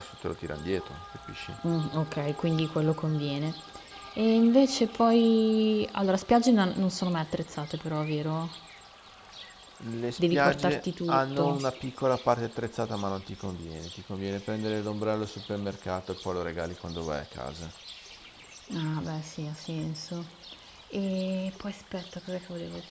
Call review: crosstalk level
present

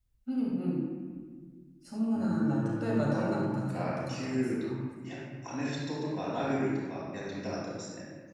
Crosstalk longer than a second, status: present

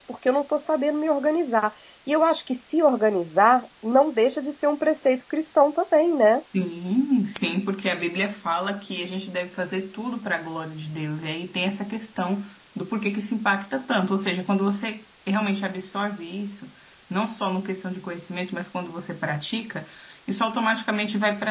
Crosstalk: none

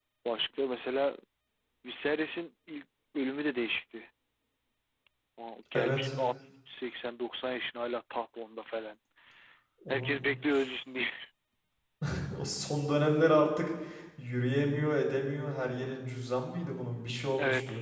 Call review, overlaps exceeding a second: none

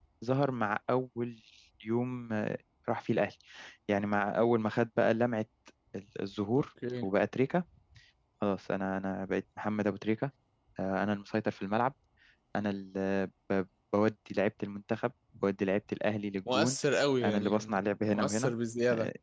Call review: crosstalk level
present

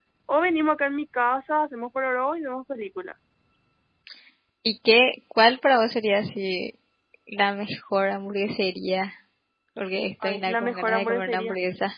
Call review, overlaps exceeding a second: present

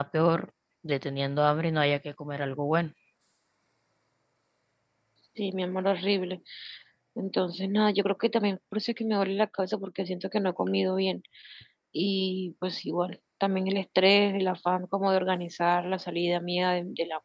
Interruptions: none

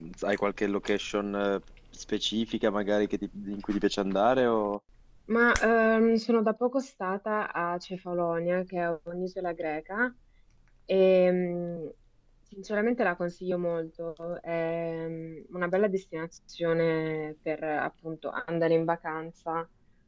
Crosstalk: none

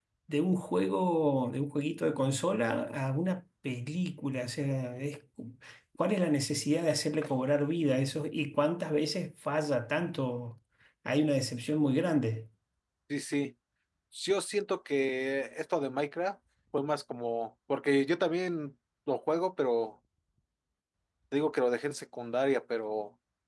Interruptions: none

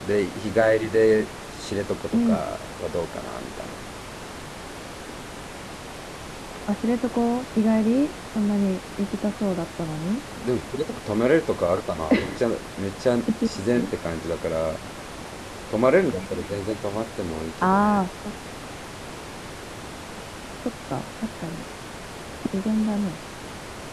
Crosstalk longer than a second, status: none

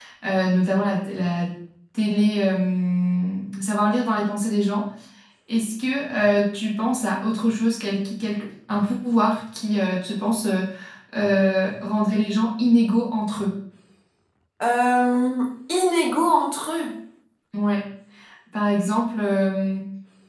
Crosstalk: none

